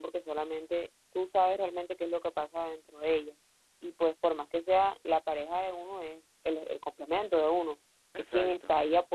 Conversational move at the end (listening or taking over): listening